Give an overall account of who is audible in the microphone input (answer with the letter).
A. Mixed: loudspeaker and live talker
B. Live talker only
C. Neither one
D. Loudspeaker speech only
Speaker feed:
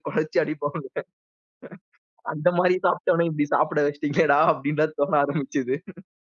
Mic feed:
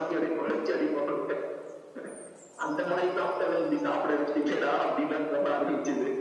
D